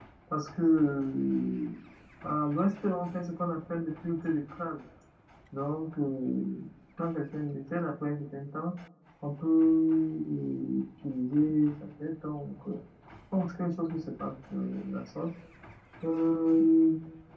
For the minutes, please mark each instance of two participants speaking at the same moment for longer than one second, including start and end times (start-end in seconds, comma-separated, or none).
none